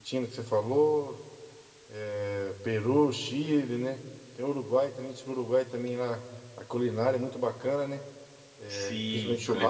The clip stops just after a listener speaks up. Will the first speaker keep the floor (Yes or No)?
No